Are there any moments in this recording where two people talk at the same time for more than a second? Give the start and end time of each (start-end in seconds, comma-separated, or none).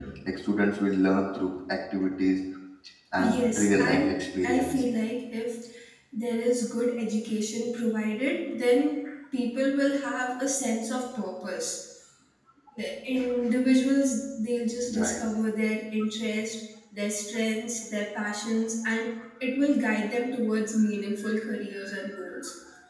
3.2-4.7